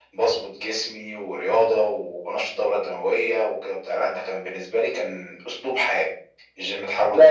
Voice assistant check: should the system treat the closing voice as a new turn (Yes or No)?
No